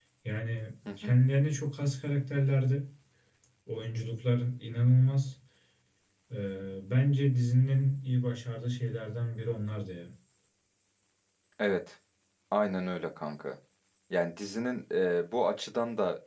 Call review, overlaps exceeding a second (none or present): none